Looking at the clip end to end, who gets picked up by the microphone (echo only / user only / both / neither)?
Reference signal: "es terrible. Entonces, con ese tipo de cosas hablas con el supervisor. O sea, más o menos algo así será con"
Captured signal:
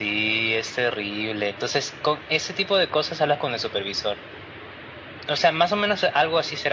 echo only